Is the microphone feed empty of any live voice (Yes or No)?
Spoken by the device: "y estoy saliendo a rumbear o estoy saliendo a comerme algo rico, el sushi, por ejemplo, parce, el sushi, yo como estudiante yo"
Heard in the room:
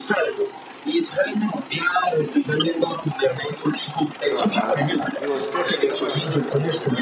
No